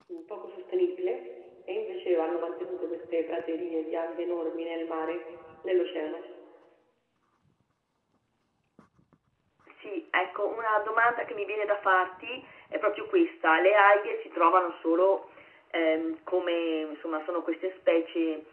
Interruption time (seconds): none

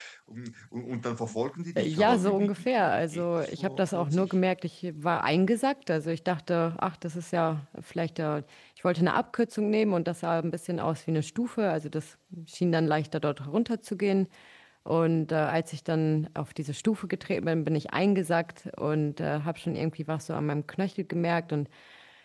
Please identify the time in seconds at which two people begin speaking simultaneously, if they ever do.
2 s

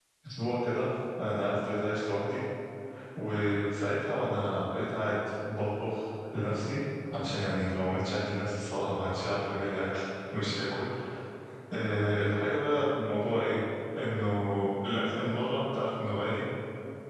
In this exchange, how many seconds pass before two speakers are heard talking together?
none

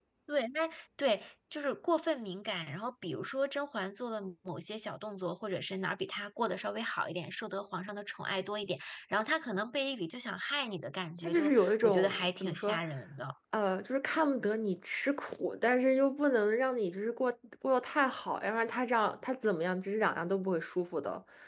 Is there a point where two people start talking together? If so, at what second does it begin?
11 s

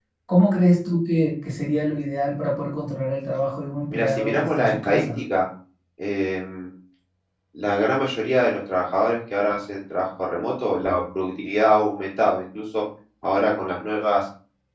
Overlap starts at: 4 s

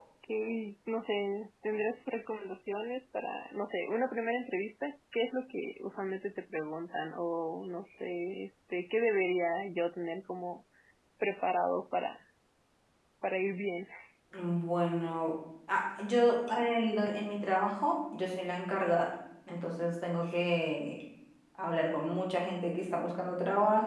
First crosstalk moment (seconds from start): none

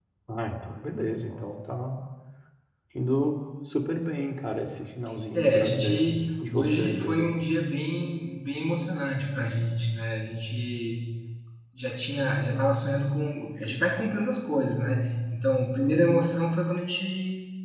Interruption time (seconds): 5 s

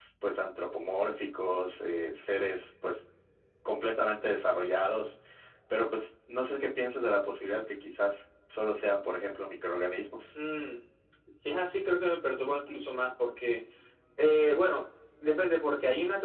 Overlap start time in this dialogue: none

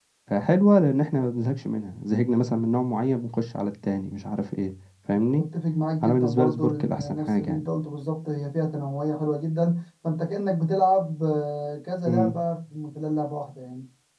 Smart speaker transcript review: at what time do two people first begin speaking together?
6 s

